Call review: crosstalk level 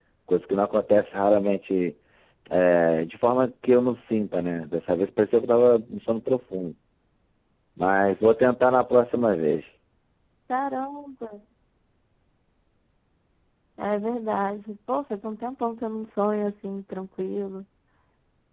none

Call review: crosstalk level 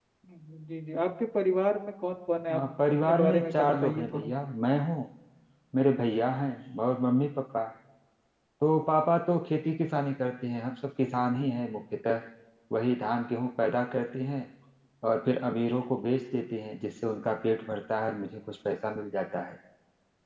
present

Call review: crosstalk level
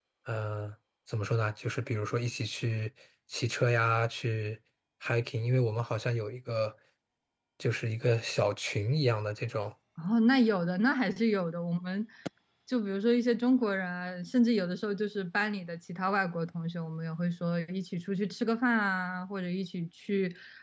none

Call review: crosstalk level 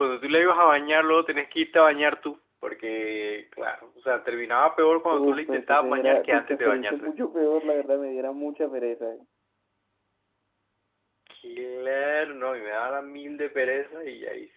present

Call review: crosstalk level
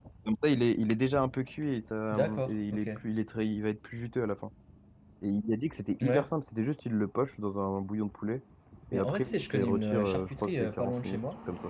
present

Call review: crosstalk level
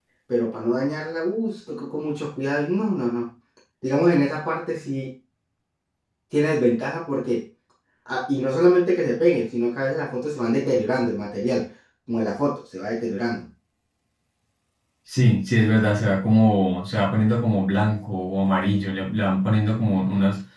none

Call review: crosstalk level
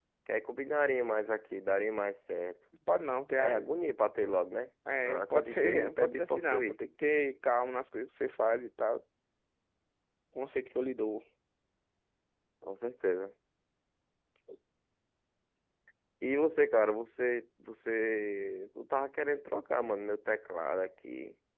present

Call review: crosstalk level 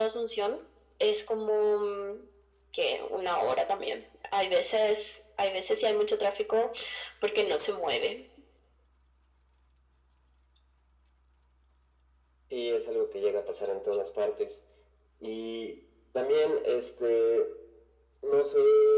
none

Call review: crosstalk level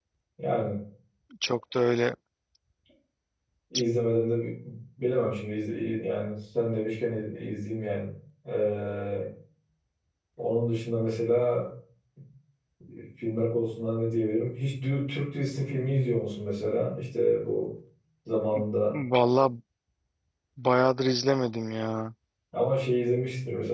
none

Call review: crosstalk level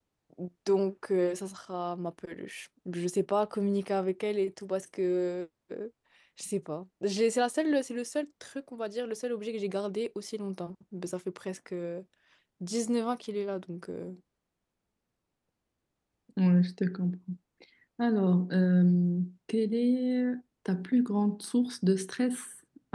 none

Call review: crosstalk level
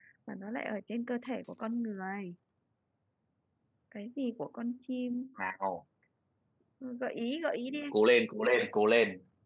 none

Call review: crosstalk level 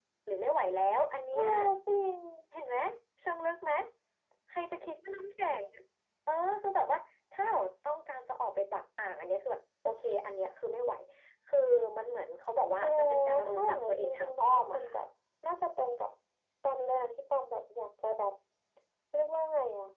present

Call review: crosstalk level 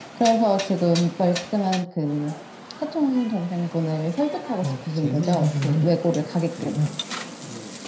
present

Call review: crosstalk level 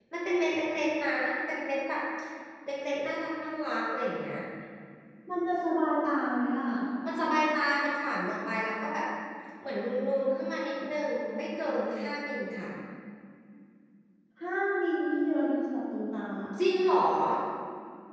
none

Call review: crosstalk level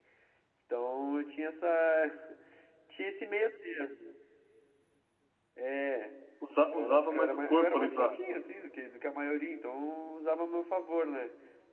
present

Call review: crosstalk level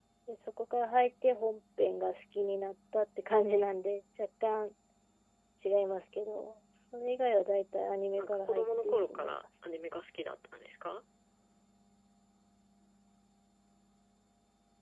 present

